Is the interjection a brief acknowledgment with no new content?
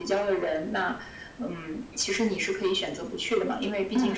Yes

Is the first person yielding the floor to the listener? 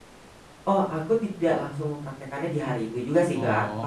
No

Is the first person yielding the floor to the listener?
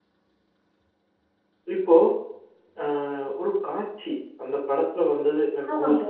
No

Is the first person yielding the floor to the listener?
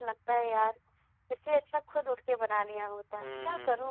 Yes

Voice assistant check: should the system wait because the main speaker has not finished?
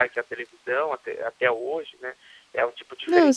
No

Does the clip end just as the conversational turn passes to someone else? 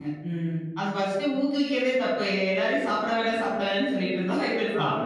Yes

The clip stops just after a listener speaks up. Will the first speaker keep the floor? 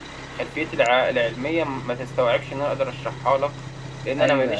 No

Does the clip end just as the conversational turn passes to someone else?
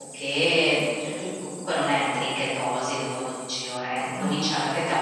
No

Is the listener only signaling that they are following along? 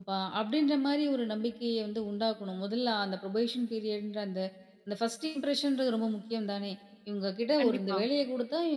Yes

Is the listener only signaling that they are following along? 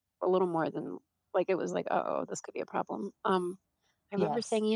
Yes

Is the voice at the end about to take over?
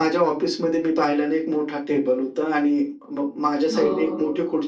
No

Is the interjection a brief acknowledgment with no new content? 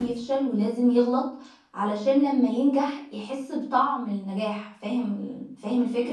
No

